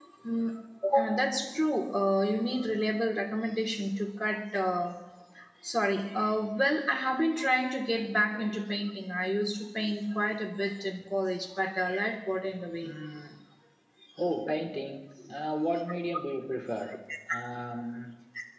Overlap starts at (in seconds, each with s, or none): none